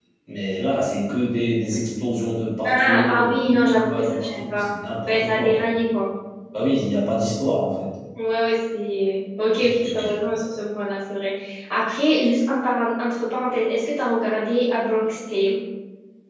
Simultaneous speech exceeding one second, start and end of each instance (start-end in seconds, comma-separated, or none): 2.6-4.7